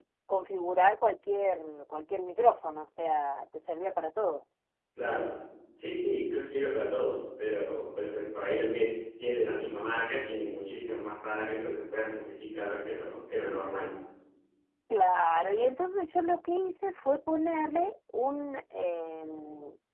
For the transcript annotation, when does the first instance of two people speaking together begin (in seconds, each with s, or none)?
none